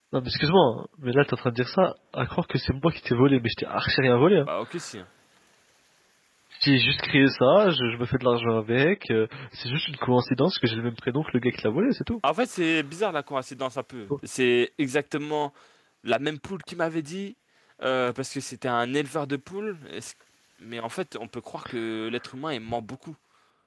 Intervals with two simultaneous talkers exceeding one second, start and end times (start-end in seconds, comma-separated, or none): none